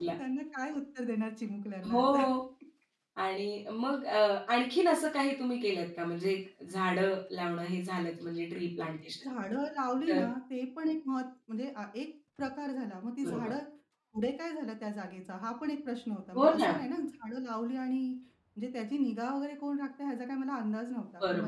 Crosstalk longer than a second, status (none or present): none